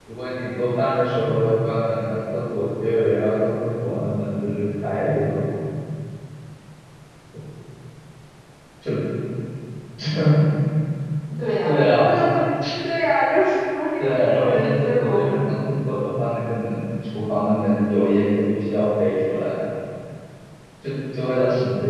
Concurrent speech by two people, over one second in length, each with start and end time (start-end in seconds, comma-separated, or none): 14.0-15.7